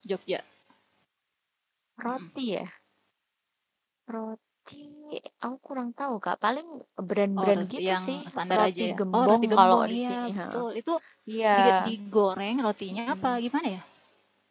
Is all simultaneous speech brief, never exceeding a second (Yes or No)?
No